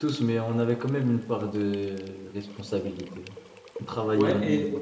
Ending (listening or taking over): taking over